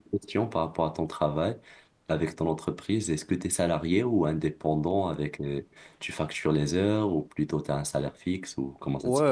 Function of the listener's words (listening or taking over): taking over